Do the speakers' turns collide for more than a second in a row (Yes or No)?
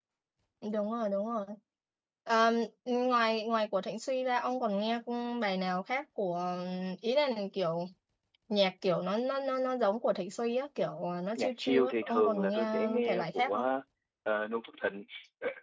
Yes